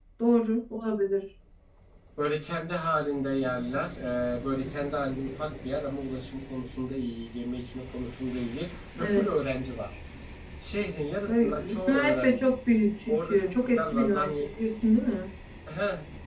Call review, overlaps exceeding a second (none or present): present